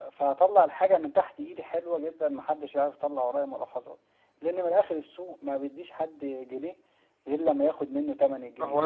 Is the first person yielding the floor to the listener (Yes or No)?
Yes